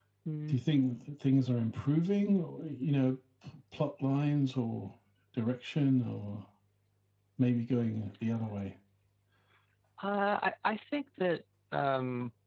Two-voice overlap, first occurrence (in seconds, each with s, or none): none